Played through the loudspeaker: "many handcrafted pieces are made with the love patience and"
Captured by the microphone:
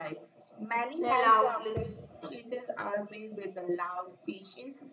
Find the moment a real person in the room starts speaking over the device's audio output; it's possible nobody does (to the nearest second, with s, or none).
1 s